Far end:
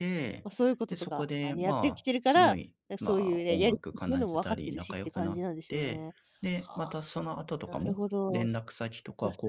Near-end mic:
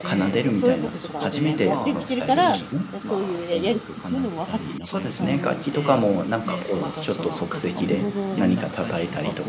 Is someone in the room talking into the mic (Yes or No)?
Yes